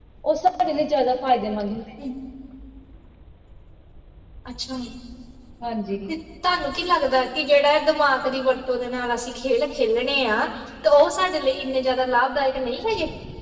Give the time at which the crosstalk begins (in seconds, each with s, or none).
none